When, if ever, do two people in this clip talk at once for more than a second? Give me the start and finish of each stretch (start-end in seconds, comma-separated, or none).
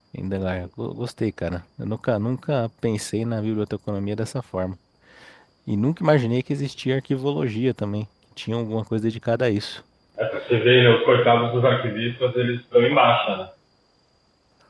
none